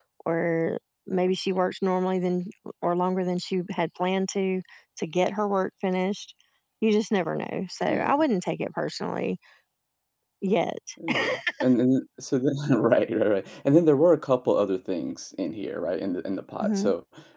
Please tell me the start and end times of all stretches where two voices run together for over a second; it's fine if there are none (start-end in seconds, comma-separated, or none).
none